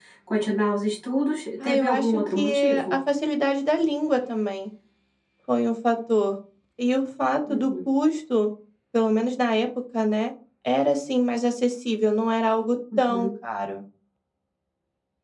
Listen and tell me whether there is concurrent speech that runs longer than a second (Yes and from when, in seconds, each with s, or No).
Yes, from 1.6 s